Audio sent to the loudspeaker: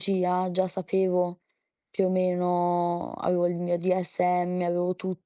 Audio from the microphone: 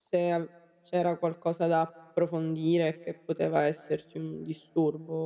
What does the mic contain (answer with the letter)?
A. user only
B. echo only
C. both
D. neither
A